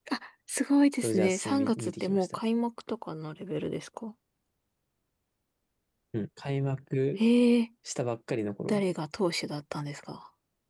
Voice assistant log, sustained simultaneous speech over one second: present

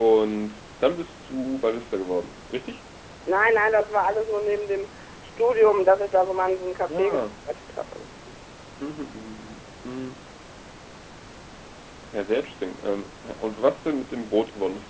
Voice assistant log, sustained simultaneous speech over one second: none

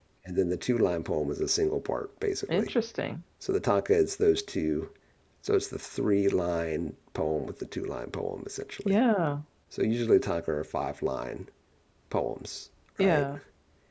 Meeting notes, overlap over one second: none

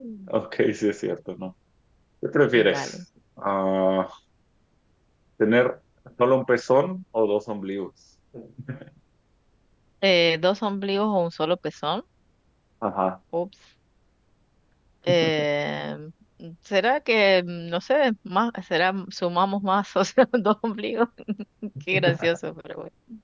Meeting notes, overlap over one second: none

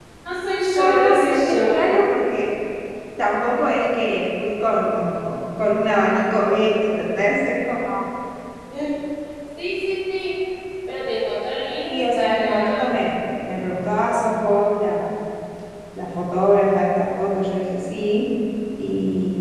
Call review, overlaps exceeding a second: present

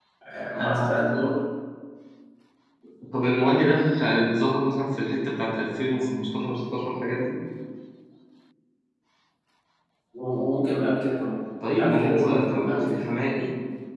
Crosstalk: present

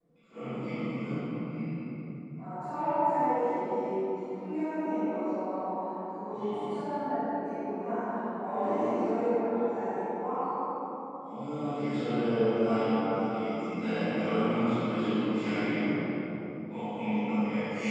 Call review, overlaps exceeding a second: none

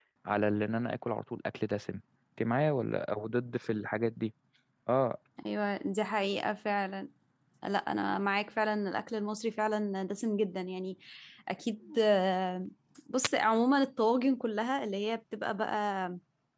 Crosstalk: none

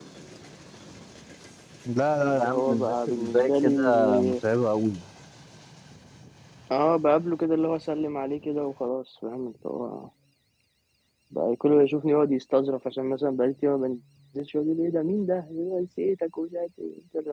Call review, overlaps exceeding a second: present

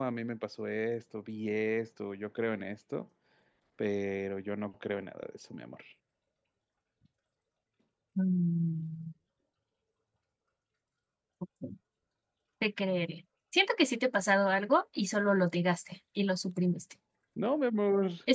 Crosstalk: none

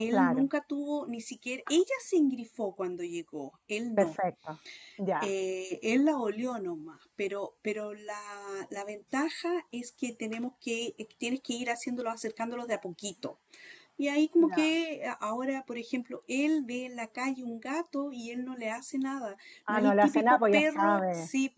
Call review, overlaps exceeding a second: present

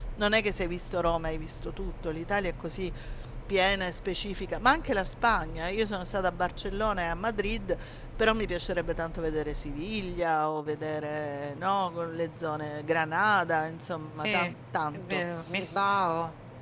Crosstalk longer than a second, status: none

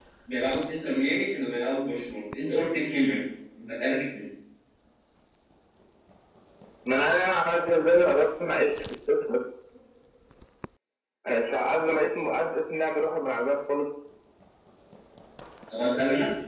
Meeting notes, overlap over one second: none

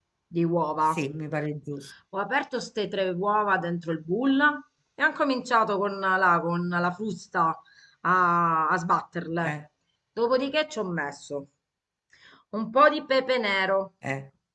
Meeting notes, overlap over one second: none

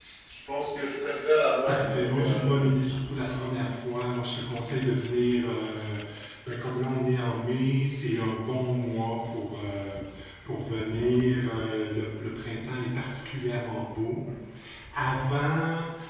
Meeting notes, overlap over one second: present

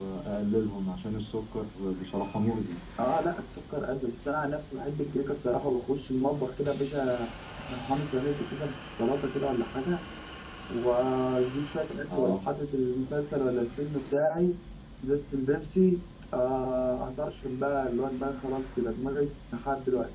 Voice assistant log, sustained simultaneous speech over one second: none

